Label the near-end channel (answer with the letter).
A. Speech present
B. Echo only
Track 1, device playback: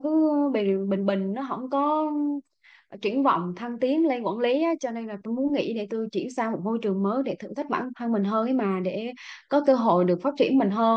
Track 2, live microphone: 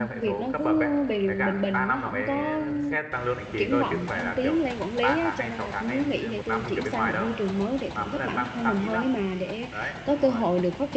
A